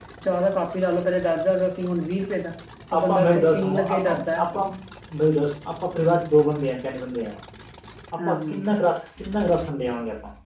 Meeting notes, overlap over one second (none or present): present